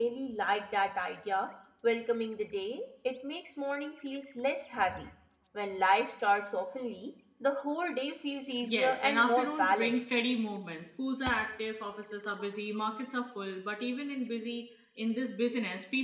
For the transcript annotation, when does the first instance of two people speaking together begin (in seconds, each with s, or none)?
8.6 s